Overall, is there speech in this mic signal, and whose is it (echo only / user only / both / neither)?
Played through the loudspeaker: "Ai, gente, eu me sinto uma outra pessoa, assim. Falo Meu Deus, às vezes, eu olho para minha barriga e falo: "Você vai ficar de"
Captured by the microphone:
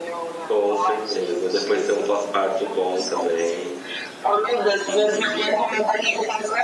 both